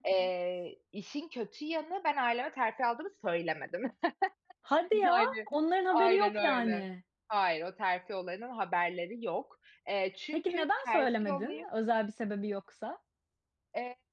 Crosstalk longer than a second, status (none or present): present